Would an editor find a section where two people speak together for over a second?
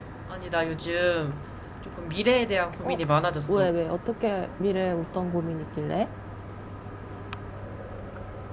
No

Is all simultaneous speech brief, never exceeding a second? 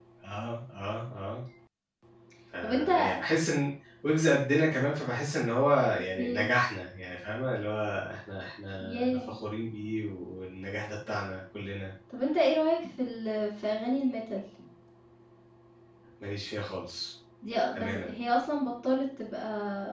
Yes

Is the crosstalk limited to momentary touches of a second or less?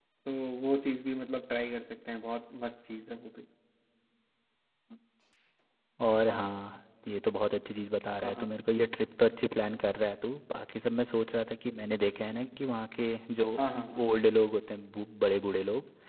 Yes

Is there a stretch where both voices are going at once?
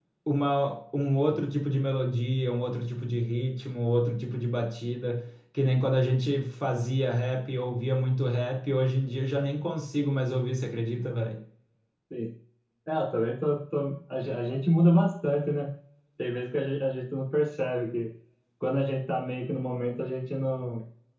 No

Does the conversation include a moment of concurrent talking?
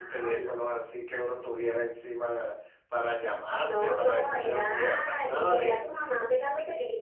Yes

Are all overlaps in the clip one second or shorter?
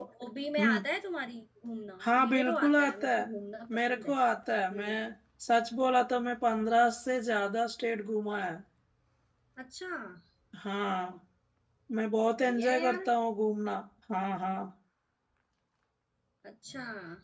No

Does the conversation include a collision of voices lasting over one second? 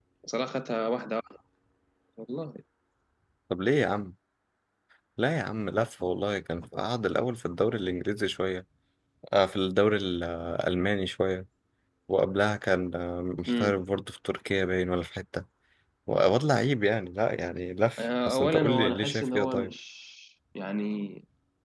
Yes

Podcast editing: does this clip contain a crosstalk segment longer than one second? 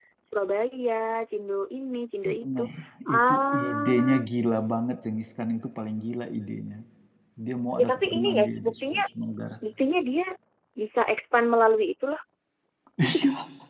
Yes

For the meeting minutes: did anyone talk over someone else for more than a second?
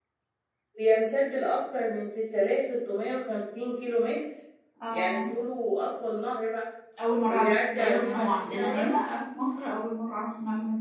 Yes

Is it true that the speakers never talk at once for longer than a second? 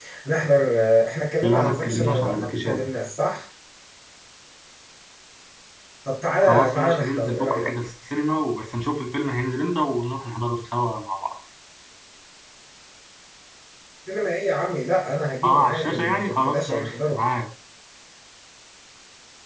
No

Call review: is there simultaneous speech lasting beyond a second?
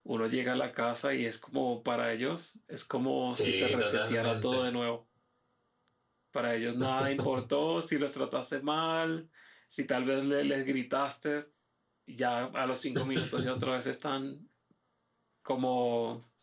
Yes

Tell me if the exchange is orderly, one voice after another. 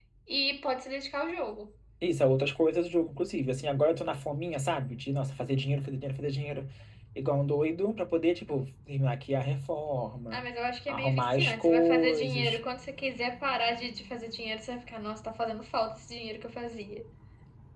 No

